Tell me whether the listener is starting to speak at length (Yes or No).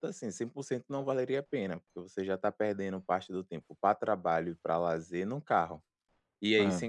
No